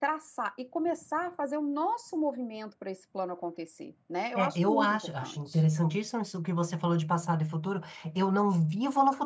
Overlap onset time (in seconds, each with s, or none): 4.3 s